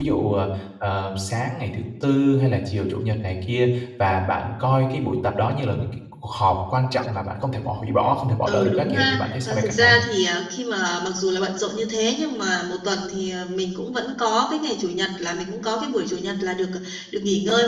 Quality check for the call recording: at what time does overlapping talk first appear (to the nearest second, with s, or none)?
8 s